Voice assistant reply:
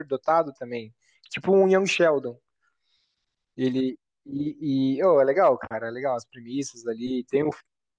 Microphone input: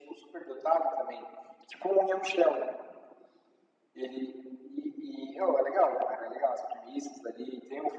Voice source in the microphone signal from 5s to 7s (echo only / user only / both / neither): echo only